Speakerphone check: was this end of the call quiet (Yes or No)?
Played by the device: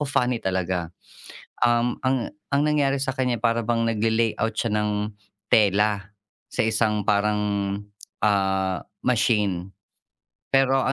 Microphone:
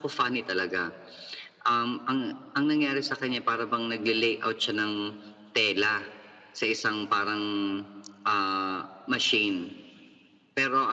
Yes